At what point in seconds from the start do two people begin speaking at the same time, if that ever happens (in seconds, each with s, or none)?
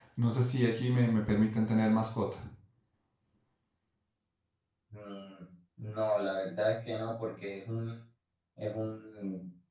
none